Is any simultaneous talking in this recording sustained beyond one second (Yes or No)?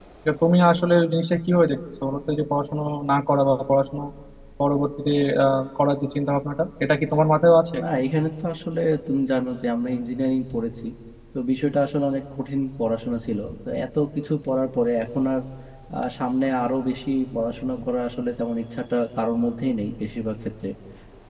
No